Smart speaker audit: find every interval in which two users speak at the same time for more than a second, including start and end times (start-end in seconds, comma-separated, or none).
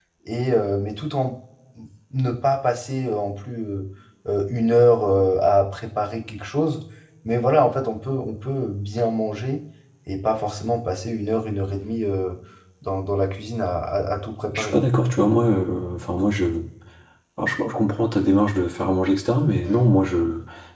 none